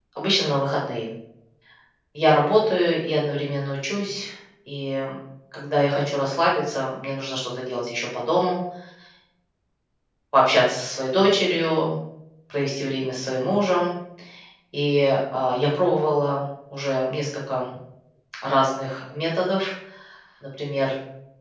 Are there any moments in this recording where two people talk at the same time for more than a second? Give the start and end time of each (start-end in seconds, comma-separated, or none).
none